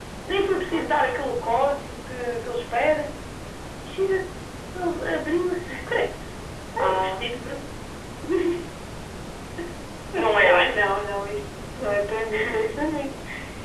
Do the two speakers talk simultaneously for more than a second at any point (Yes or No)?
No